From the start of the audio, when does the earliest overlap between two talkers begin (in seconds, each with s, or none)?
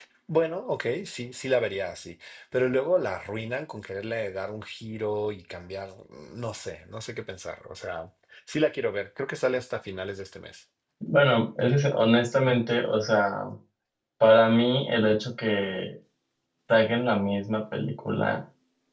none